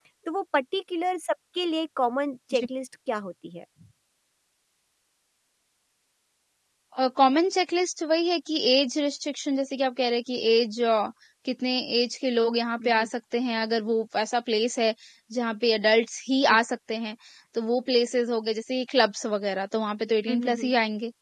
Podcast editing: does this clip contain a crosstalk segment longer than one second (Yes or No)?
No